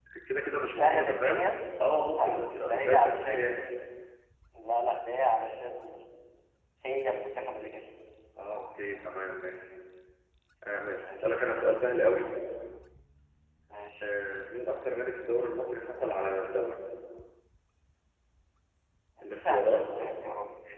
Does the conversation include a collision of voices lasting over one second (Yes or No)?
Yes